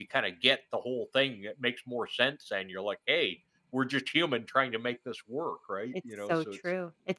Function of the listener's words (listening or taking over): taking over